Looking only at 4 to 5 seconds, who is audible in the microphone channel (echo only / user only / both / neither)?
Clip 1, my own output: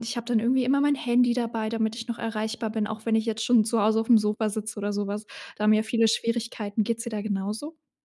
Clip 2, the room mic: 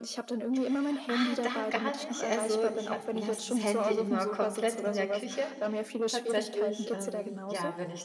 both